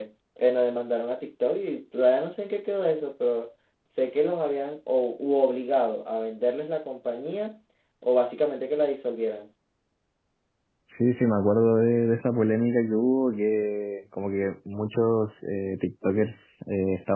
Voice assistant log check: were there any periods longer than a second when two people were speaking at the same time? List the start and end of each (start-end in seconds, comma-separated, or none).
none